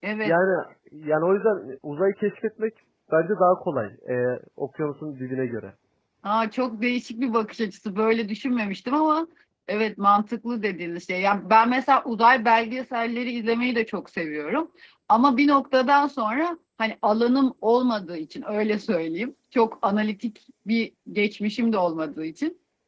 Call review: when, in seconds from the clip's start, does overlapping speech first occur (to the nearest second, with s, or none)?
none